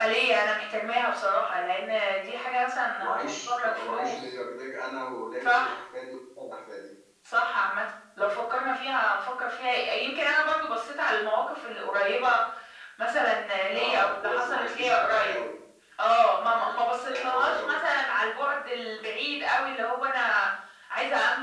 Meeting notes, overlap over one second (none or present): present